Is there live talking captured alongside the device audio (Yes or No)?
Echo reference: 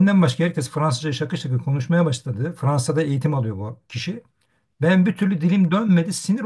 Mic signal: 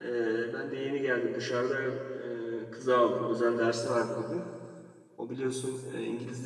Yes